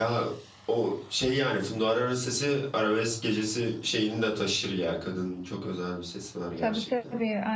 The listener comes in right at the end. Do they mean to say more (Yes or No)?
Yes